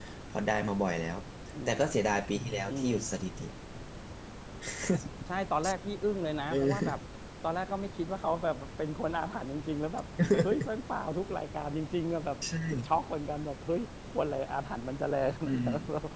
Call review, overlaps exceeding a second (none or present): none